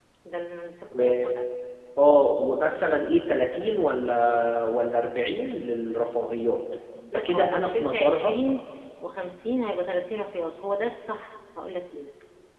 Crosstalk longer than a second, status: present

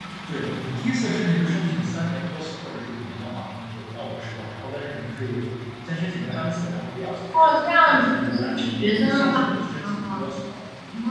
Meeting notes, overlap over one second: present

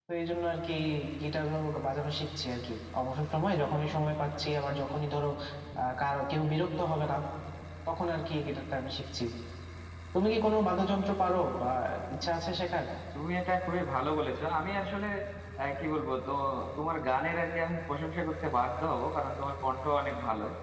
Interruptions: none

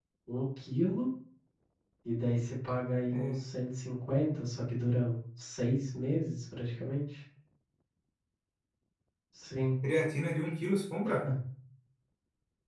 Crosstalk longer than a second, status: none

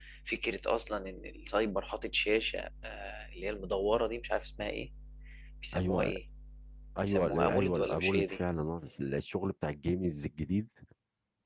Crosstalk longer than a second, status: present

